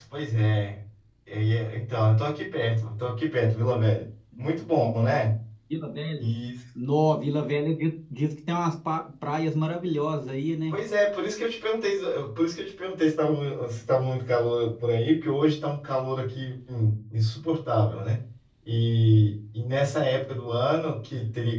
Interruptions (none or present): none